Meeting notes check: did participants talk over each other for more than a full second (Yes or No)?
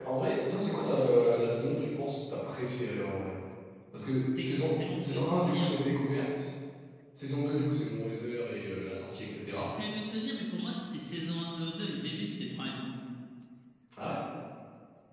Yes